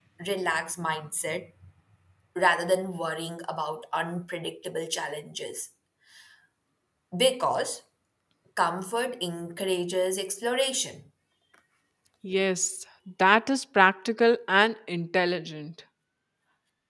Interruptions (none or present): none